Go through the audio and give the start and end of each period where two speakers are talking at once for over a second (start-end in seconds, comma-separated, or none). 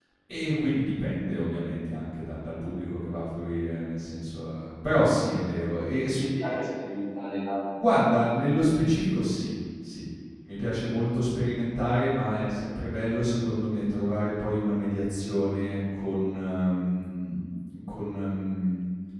none